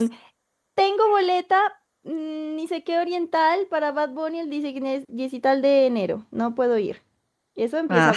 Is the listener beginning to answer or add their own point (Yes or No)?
Yes